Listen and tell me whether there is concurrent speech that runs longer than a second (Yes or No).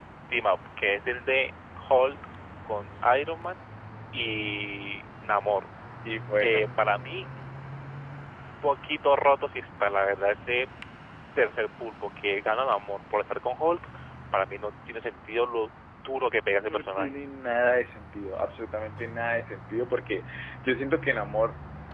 No